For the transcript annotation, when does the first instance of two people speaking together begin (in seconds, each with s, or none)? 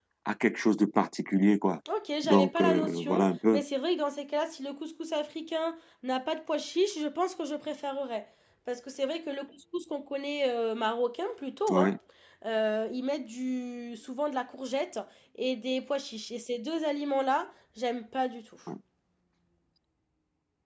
2.2 s